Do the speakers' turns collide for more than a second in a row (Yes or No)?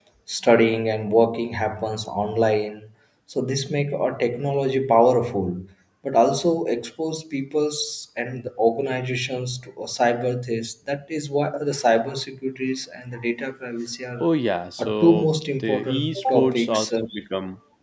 Yes